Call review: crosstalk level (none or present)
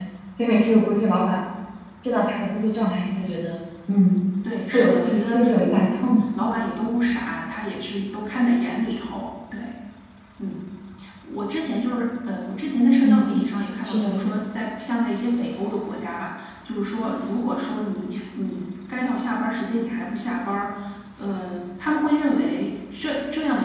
present